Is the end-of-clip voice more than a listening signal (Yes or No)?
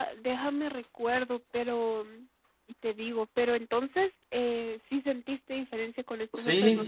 Yes